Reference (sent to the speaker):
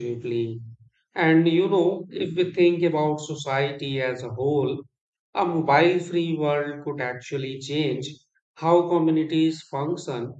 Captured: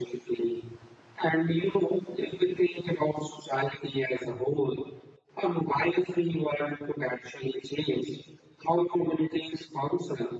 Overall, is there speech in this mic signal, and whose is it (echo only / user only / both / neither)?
echo only